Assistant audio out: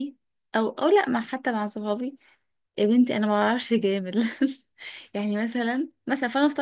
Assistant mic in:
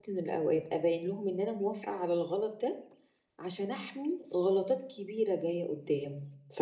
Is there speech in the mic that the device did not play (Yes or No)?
Yes